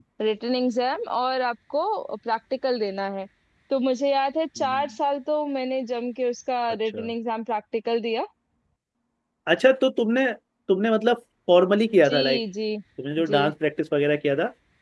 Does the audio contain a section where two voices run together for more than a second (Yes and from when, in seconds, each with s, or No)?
No